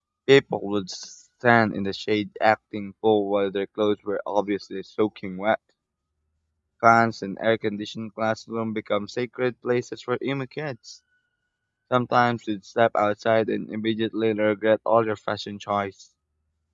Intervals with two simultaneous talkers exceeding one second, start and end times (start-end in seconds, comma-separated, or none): none